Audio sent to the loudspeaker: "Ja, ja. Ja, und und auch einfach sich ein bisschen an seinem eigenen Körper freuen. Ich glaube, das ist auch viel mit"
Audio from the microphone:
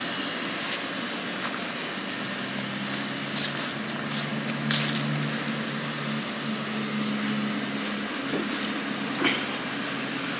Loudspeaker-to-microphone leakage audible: No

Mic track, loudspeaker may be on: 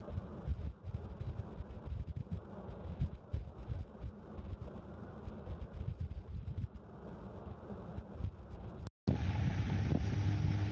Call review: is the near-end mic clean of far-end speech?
Yes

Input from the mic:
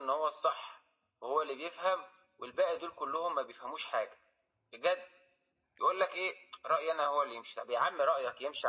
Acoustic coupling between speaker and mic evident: Yes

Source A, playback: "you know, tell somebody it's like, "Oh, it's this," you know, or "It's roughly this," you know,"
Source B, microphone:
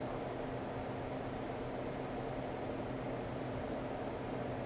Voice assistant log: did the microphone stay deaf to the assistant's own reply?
Yes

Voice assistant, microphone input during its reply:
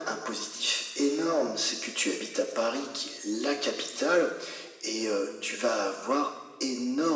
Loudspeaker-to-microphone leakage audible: Yes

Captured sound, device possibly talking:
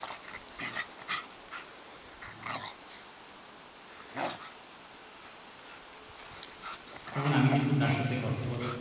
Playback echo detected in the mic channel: No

